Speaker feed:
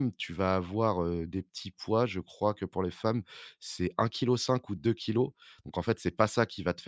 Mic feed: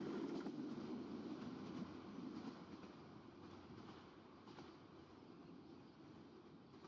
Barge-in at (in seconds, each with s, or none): none